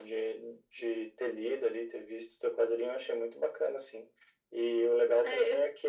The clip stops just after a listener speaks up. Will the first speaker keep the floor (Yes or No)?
Yes